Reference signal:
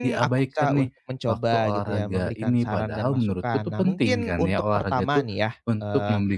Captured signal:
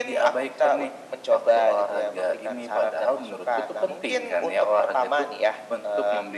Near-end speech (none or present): none